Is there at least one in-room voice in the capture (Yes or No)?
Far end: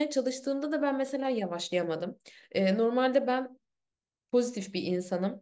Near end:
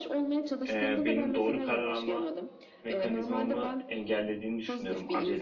Yes